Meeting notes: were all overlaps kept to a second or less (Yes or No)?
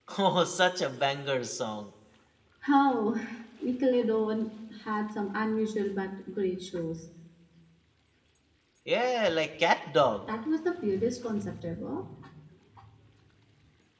Yes